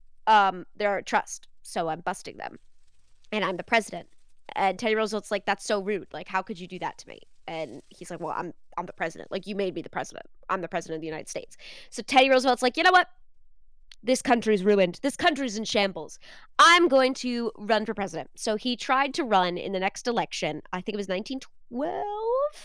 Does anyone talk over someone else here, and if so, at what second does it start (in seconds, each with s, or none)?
none